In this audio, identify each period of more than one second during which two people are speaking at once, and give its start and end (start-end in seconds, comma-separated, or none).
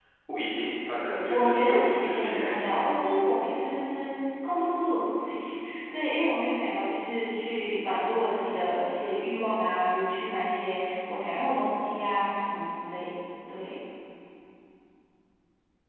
1.3-2.9